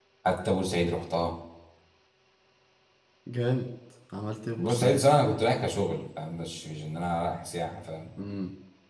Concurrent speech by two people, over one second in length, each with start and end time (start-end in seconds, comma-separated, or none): none